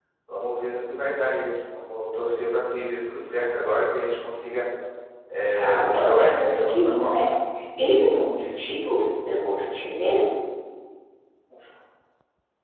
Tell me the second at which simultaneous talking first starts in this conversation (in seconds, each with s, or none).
5.5 s